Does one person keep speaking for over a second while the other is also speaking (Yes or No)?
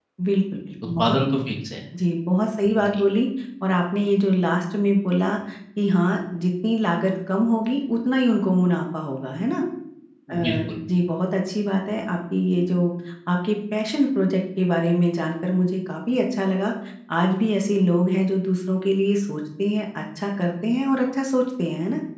No